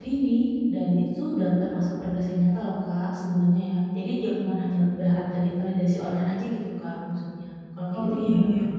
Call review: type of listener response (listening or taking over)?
taking over